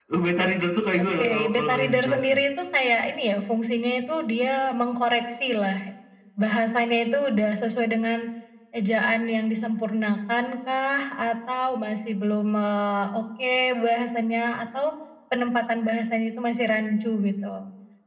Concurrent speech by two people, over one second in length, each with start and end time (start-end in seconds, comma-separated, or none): 1.0-2.4